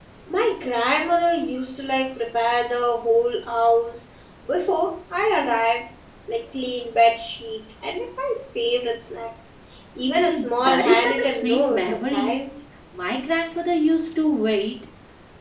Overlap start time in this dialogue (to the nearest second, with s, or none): 10 s